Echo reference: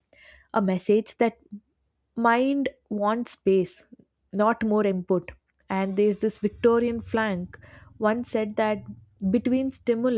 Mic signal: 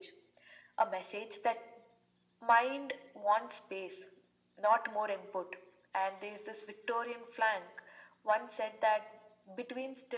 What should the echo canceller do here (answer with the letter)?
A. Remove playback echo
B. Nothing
A